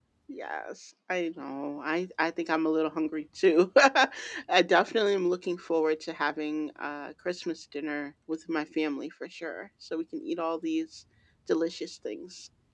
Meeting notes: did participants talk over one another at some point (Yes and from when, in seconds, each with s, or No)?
No